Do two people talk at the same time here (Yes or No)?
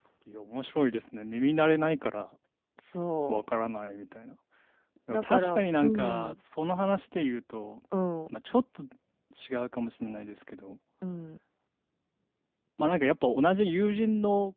Yes